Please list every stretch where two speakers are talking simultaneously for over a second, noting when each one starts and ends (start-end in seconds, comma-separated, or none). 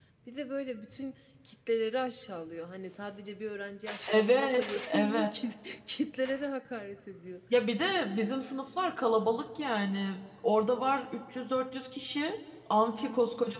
4.1-5.3